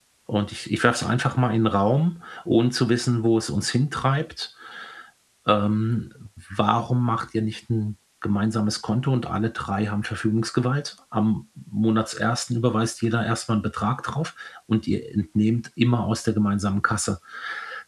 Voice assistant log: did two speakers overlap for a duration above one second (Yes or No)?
No